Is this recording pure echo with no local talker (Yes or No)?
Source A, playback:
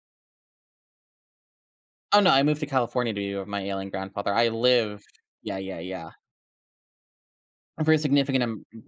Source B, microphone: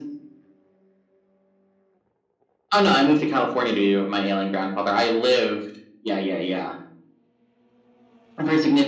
Yes